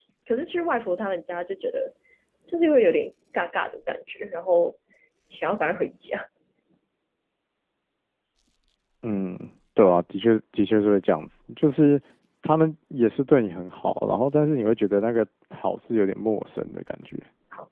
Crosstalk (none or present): none